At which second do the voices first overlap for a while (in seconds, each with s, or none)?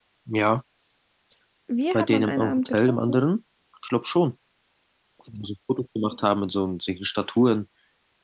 1.9 s